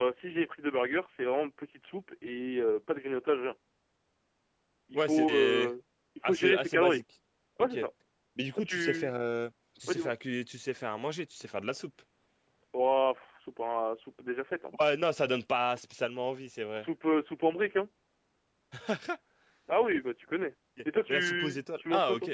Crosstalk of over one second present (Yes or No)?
Yes